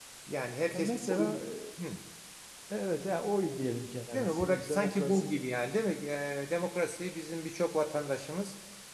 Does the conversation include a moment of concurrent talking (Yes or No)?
Yes